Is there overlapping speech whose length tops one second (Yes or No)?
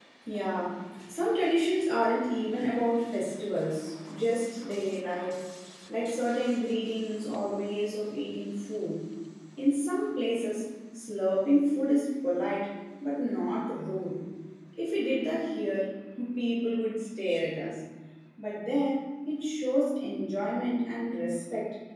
No